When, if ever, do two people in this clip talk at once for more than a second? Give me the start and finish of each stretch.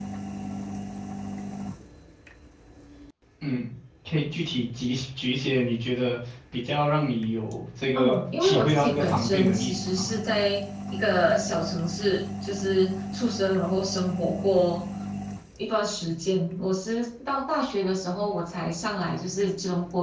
8.0-10.1

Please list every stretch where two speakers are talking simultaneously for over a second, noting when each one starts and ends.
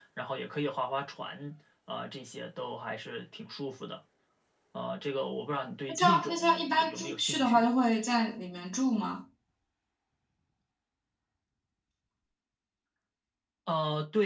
5.9-7.7

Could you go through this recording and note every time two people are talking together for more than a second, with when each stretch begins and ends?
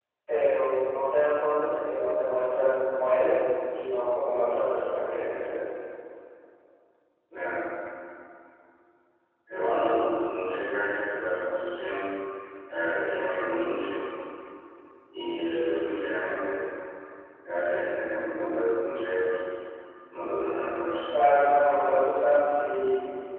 none

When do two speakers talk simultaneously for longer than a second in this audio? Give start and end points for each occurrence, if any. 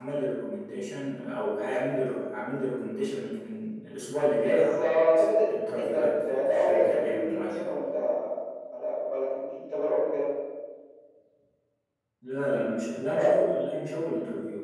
5.8-7.7

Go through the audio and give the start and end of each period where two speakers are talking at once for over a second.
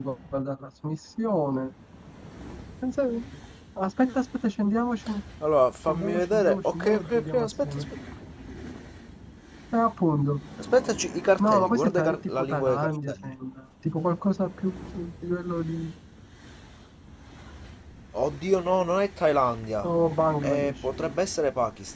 5.9-7.8, 11.4-13.4

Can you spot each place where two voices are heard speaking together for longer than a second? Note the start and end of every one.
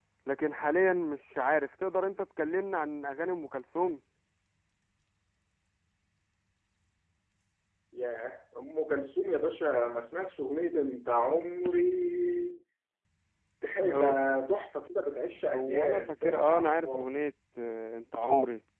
15.5-17.0

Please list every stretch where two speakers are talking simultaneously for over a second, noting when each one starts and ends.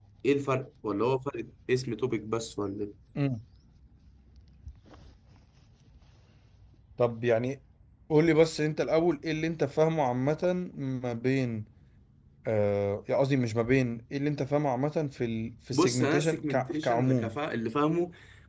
15.7-17.4

